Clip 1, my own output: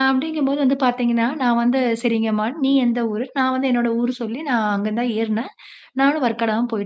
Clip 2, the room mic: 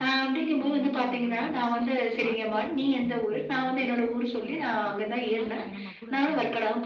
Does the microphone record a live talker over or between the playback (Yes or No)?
Yes